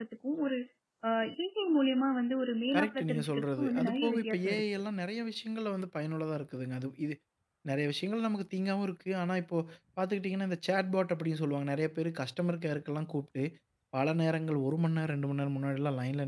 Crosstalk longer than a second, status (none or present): present